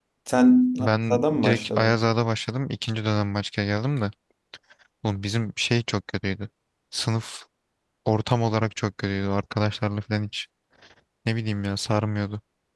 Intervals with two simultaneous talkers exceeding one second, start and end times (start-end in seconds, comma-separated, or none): 0.8-2.0